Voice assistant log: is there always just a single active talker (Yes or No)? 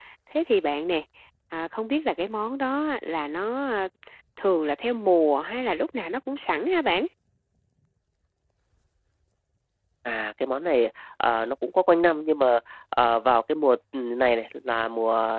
Yes